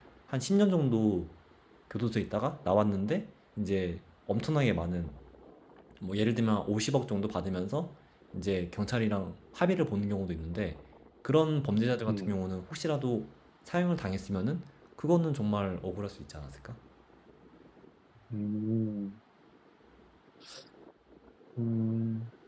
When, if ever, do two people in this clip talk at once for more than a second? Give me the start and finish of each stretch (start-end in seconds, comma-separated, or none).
none